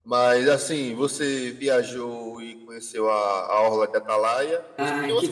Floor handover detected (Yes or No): Yes